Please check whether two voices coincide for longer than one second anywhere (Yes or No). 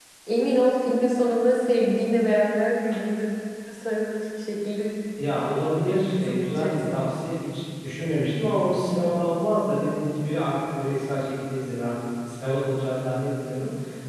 Yes